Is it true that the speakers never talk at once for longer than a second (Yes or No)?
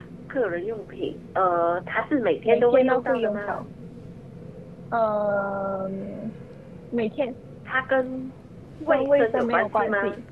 No